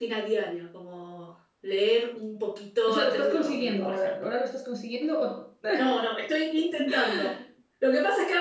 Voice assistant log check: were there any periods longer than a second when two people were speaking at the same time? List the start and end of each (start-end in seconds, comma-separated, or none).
2.9-4.2